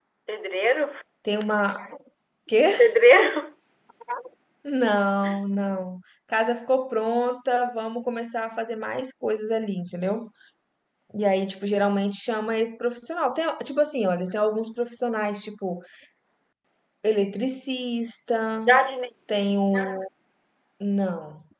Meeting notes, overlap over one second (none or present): none